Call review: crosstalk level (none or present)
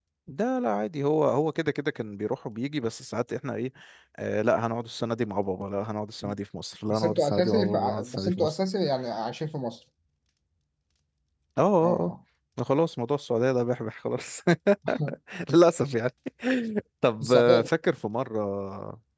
present